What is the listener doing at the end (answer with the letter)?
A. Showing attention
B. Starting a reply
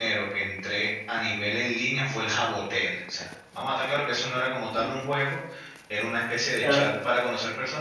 A